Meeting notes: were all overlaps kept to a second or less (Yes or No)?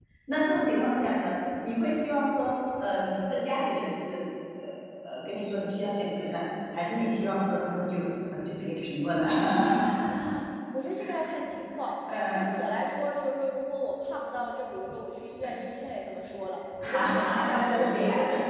No